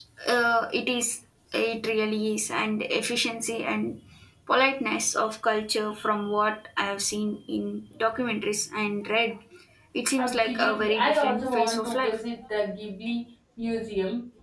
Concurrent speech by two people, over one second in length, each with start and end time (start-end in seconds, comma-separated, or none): 10.2-12.2